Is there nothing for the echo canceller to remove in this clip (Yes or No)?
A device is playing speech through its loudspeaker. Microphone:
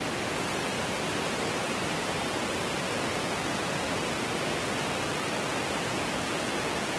Yes